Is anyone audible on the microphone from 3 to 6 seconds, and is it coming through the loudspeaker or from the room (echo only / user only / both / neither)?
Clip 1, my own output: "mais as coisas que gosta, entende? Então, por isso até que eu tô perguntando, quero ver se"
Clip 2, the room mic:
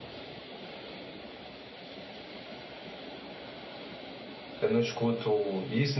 user only